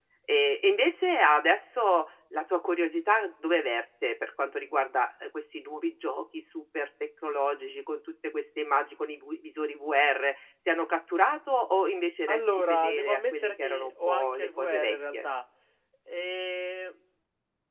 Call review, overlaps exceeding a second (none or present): present